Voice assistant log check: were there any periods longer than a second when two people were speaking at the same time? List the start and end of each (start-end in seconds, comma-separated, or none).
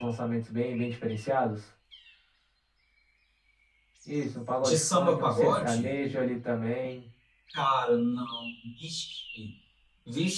4.6-5.9